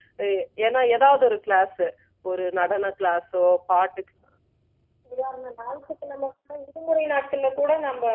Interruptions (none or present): none